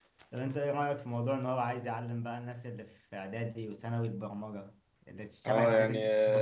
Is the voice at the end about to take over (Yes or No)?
Yes